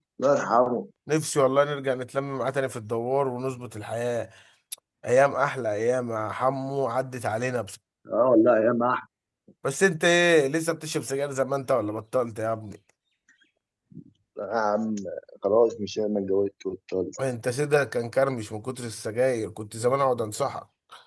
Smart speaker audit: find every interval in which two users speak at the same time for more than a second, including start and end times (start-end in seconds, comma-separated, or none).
none